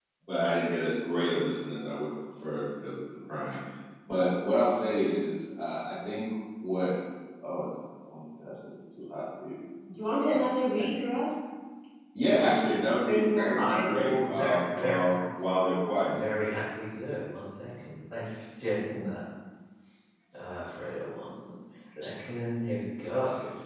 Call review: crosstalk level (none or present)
present